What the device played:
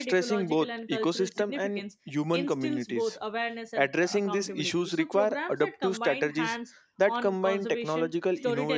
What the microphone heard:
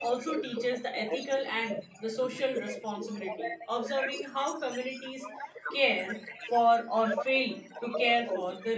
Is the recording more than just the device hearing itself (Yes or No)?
Yes